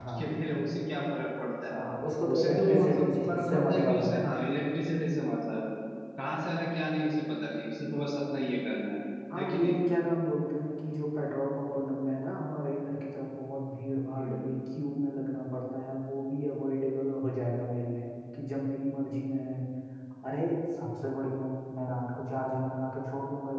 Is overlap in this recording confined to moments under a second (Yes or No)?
No